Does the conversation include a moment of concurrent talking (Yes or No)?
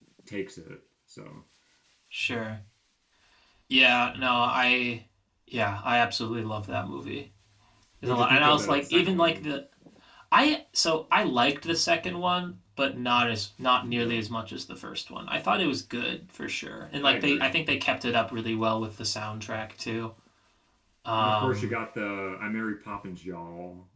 Yes